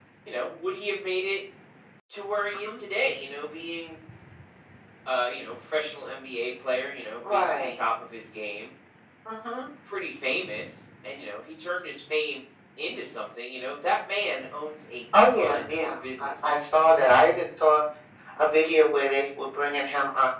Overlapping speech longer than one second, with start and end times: 15.2-16.7

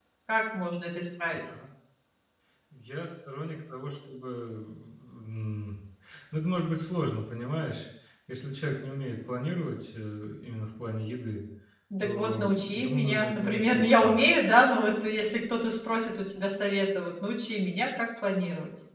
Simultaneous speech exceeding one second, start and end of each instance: 12.0-14.2

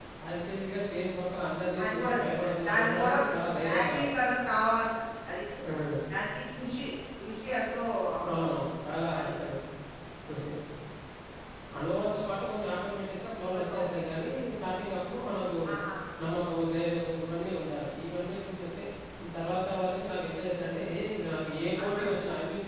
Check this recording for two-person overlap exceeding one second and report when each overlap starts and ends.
1.8-4.2

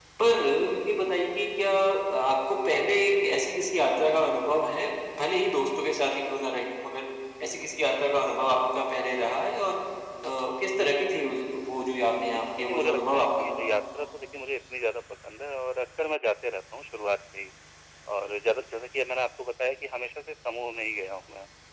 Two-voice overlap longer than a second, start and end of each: 12.3-13.6

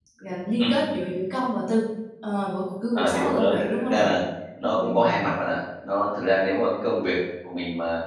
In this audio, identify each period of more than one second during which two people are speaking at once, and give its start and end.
2.9-4.2

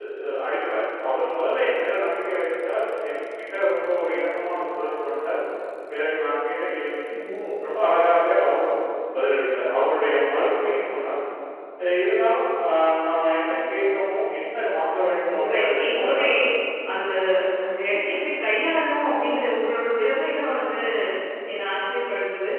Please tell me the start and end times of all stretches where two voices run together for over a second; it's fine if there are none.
15.0-16.3

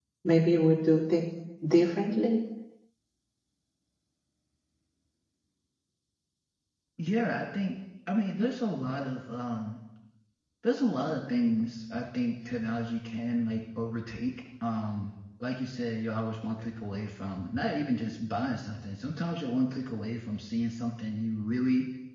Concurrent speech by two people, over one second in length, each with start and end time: none

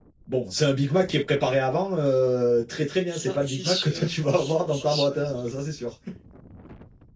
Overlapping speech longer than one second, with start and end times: 3.1-5.3

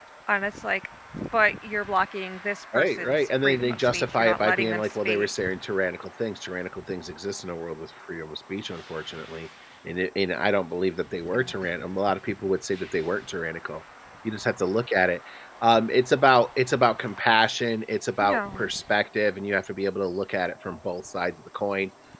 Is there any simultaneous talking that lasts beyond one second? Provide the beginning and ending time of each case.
2.8-5.3

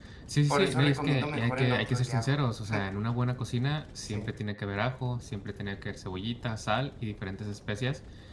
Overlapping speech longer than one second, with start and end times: 0.5-2.3

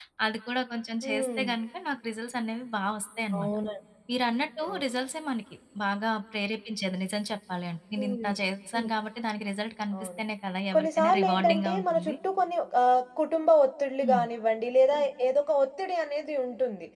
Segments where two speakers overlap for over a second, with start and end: 10.7-12.2

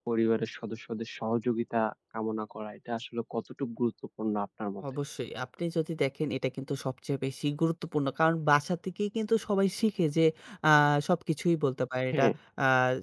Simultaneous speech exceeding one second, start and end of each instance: none

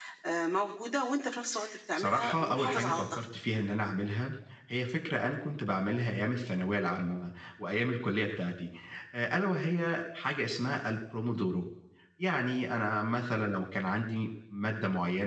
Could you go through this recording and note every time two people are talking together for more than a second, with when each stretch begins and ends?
1.9-3.2

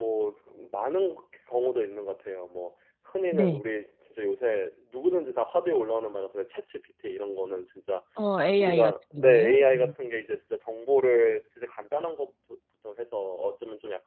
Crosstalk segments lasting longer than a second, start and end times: 8.6-9.9

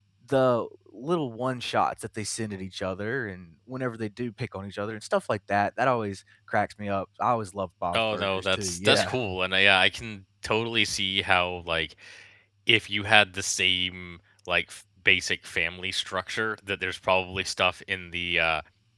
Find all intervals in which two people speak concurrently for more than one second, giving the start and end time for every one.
7.9-9.1

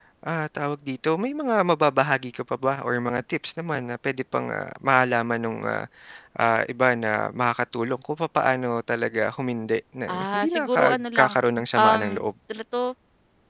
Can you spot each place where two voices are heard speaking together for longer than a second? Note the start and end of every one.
10.1-11.3

